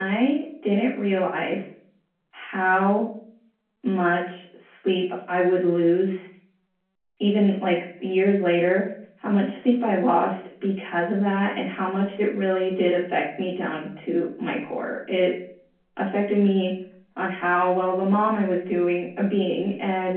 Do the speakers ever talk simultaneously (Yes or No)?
No